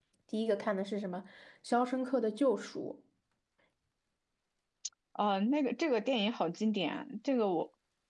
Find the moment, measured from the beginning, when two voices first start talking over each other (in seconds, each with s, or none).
none